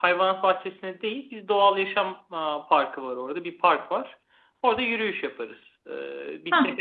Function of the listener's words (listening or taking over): listening